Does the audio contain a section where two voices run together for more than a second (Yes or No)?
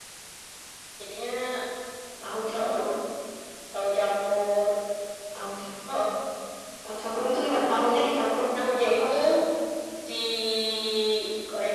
No